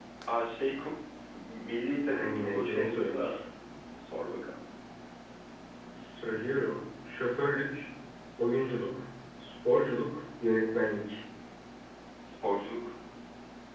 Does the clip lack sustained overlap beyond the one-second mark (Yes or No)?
No